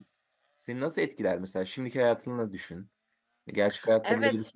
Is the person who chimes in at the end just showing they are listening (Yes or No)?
No